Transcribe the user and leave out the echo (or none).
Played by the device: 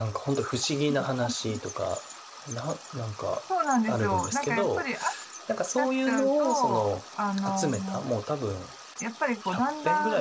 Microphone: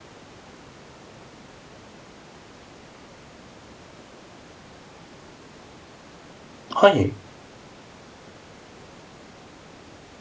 はい。